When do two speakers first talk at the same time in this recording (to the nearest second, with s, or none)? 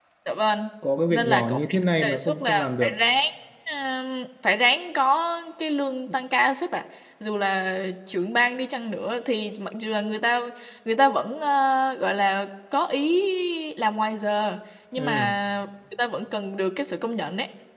1 s